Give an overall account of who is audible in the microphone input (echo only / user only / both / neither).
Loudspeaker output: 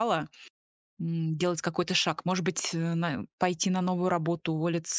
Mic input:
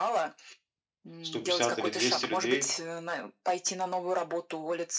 both